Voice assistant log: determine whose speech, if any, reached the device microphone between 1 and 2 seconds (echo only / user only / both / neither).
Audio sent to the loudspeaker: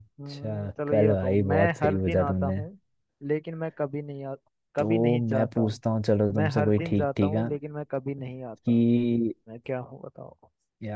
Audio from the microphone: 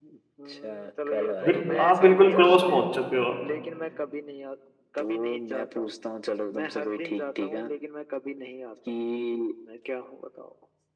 both